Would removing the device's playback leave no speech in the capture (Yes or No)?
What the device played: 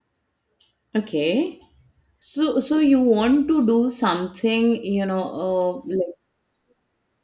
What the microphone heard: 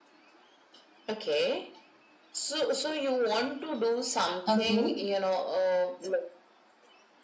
No